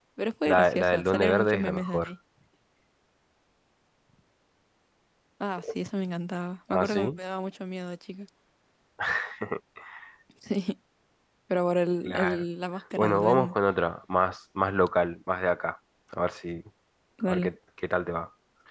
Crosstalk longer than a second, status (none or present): present